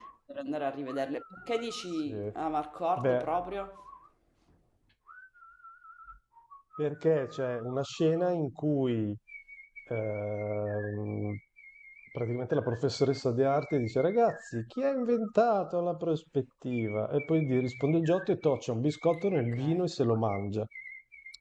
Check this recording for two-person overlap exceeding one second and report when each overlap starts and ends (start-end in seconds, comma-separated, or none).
none